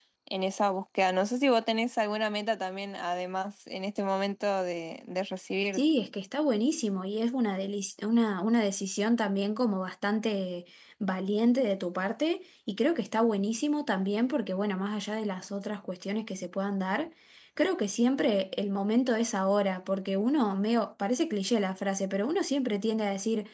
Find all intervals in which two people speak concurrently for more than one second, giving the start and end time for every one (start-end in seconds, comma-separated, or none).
none